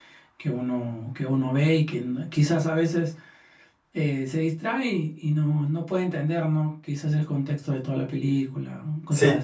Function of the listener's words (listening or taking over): taking over